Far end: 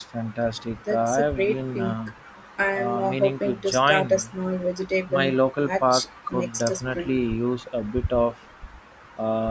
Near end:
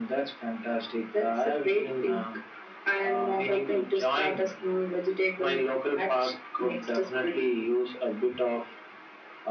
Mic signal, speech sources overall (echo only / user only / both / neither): echo only